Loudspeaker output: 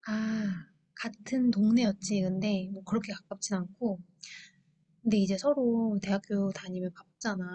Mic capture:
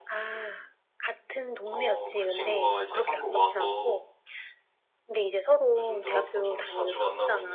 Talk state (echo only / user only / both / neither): both